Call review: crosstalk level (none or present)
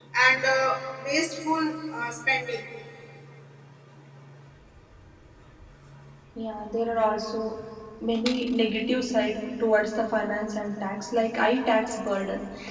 none